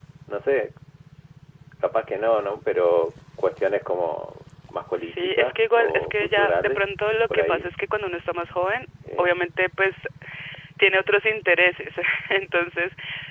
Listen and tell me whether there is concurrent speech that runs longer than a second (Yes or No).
Yes